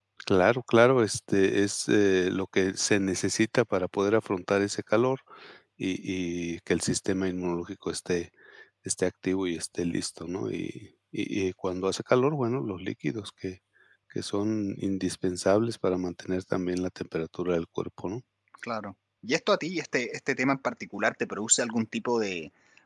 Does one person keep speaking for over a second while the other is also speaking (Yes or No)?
No